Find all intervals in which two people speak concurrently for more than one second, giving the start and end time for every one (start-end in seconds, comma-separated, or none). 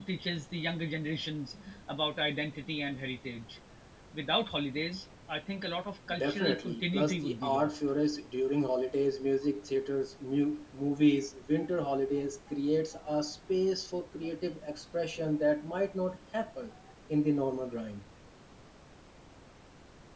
6.2-7.8